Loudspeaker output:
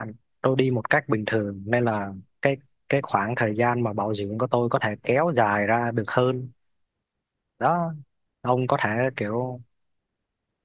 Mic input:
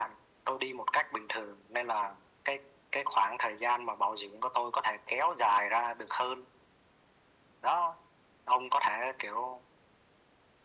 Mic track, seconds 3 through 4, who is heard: echo only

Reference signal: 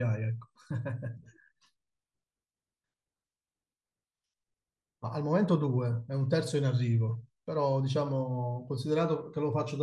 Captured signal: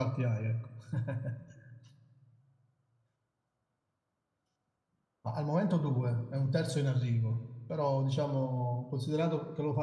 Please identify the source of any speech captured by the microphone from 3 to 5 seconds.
neither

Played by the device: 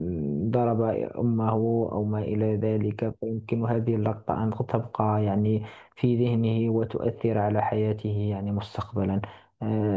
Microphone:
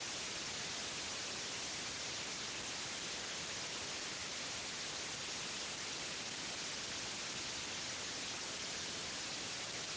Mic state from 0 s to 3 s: neither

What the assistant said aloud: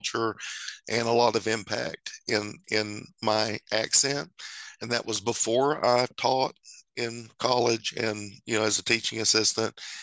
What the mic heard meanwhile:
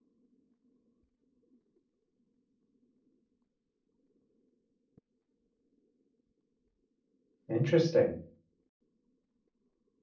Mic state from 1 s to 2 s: neither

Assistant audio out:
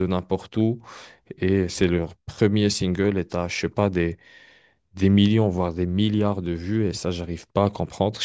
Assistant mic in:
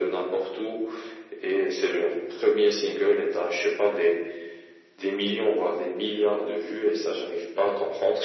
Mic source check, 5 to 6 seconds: echo only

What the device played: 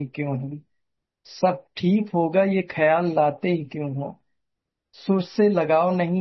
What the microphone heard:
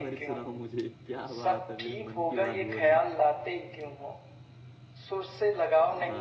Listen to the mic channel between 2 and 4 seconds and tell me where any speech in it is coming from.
both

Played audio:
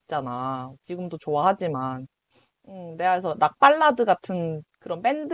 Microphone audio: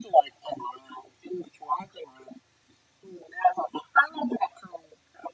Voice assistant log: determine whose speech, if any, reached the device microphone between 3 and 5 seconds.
echo only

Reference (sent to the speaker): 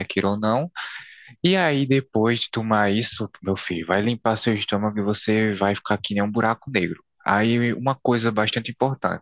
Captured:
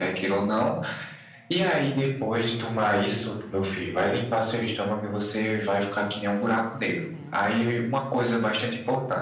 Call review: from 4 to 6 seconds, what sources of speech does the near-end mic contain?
echo only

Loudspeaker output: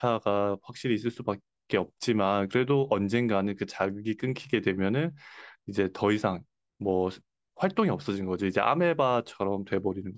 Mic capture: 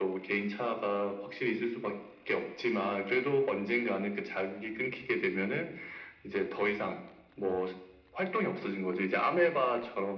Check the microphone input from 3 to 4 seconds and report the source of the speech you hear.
echo only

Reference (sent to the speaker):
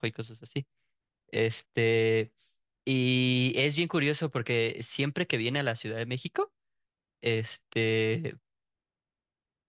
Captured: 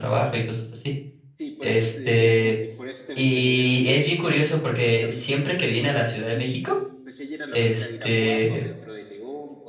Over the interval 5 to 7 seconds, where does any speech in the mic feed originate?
both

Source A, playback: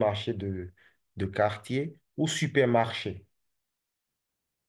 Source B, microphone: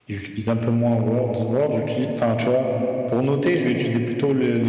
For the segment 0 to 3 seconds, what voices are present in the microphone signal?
user only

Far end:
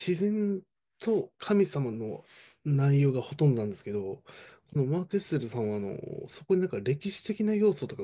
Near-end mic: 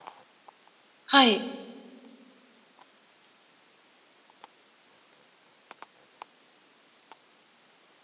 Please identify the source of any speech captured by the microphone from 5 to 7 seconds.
neither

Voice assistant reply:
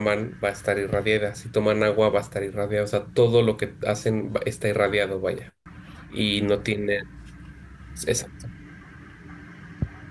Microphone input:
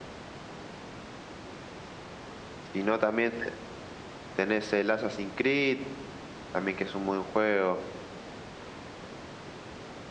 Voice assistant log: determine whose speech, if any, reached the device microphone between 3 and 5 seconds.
user only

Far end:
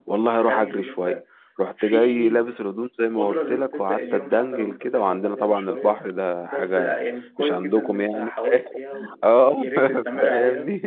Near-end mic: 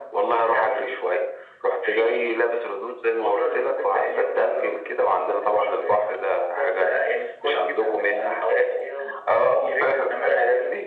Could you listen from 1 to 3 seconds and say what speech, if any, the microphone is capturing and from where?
echo only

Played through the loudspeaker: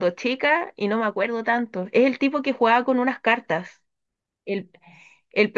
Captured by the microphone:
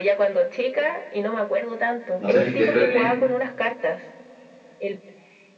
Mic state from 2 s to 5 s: both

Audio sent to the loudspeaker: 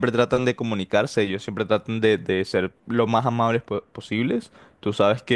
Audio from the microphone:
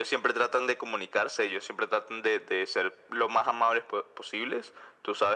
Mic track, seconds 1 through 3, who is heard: echo only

